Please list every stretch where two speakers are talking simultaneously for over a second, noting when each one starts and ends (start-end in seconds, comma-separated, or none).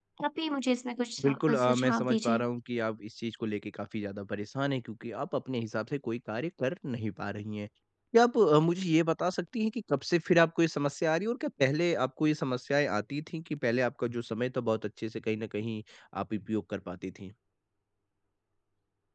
1.2-2.4